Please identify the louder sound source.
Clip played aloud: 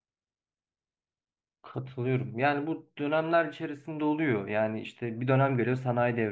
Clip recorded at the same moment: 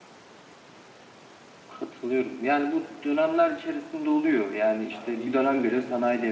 echo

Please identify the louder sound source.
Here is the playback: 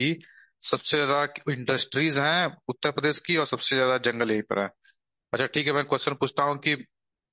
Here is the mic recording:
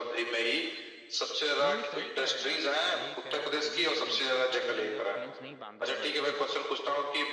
echo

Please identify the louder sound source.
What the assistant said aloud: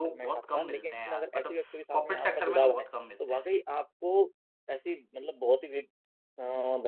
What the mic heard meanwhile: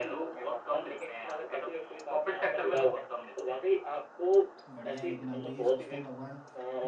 echo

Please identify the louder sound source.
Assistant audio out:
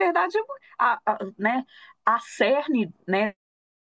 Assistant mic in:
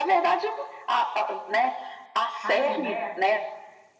echo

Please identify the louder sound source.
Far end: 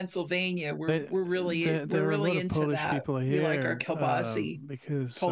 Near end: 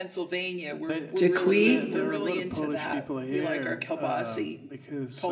user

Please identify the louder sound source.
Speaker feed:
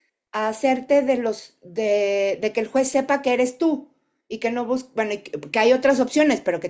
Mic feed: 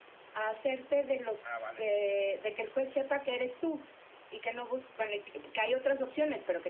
echo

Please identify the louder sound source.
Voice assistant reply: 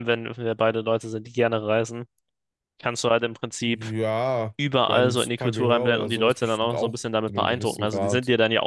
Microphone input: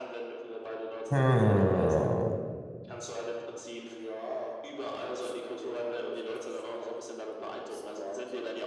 user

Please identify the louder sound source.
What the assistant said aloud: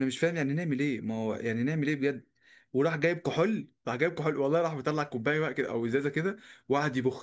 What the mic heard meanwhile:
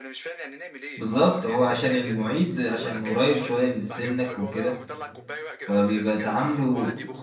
user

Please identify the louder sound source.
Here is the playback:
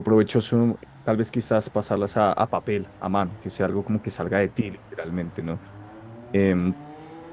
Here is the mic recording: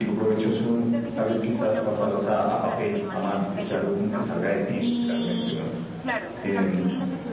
echo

